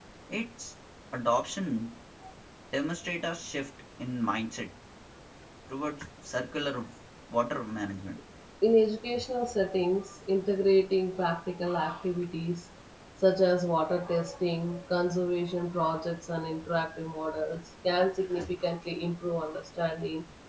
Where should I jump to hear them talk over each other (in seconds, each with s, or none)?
none